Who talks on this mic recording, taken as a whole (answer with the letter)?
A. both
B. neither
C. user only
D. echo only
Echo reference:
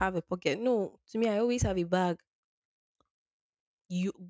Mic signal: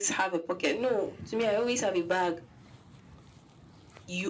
D